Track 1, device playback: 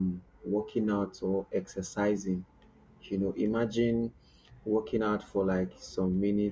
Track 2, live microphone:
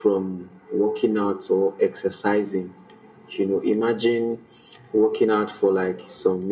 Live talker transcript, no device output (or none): none